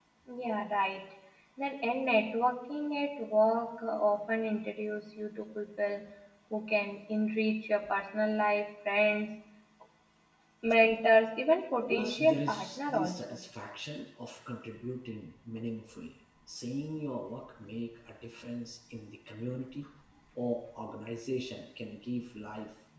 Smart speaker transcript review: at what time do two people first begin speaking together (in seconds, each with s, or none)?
11.9 s